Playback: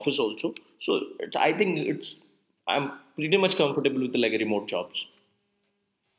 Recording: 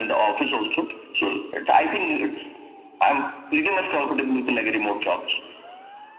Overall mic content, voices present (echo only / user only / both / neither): echo only